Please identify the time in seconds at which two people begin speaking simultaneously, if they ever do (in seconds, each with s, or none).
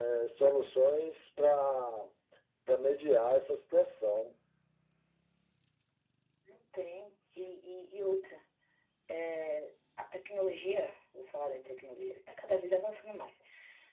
none